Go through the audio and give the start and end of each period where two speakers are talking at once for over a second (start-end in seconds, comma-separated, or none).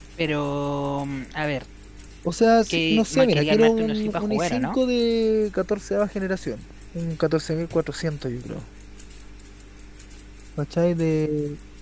2.7-4.8